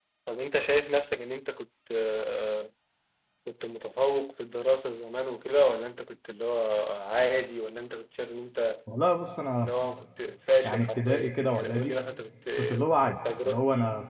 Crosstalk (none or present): present